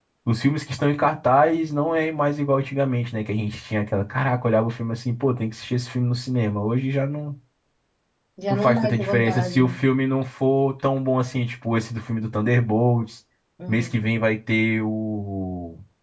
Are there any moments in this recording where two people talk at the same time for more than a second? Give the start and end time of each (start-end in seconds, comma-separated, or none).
8.5-9.7